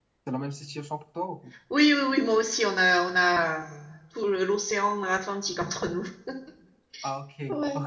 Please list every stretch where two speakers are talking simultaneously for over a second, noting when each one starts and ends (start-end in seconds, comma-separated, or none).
none